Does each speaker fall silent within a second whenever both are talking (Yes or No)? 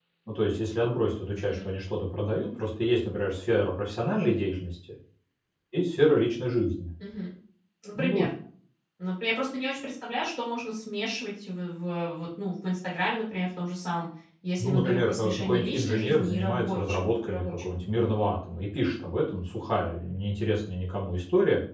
No